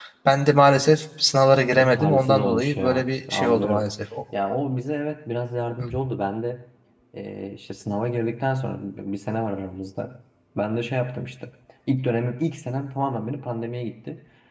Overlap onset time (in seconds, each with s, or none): 1.7 s